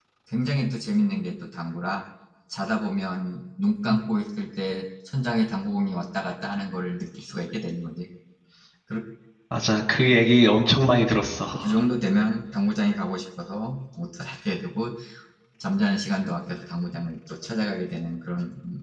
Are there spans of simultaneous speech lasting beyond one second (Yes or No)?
No